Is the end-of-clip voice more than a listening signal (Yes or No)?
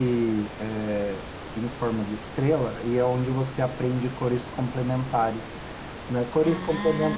No